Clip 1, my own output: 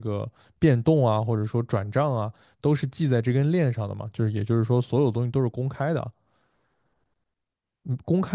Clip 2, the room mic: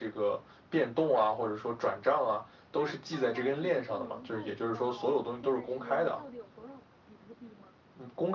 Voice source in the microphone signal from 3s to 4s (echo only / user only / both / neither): both